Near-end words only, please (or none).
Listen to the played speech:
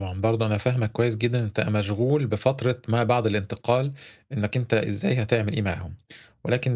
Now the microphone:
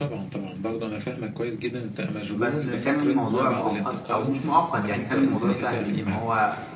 بس كان الموضوع مؤقت أو مش مؤقت يعني كان الموضوع سهل، إن هو